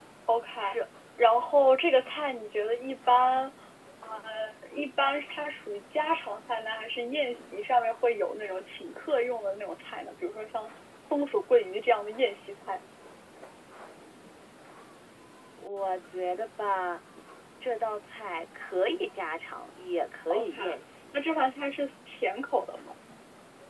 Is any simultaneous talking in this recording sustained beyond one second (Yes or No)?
No